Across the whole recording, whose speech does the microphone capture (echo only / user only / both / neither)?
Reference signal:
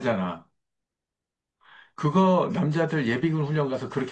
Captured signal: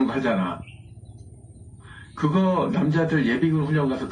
echo only